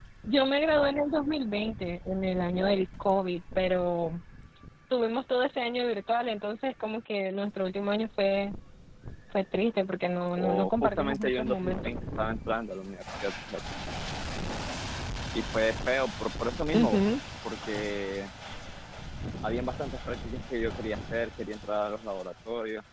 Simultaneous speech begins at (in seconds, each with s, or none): 10.4 s